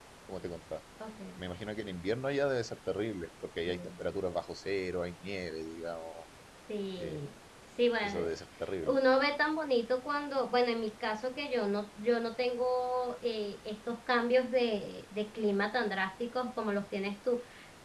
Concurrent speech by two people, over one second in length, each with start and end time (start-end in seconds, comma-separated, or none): none